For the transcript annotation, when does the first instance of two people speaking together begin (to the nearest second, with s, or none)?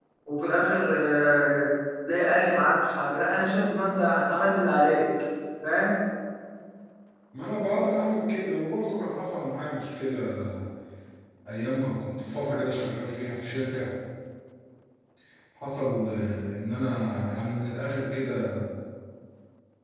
none